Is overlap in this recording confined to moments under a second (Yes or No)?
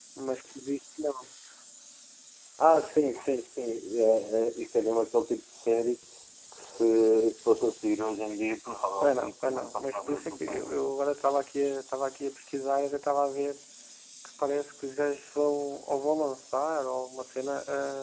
No